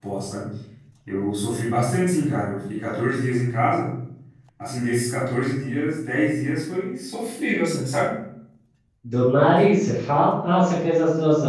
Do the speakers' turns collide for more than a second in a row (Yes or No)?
No